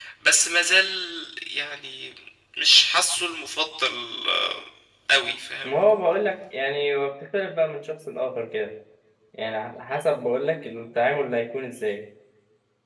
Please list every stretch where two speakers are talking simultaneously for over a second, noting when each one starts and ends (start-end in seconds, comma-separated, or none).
none